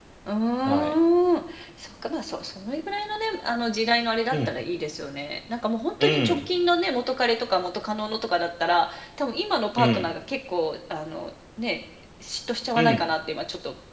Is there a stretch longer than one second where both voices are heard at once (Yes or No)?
No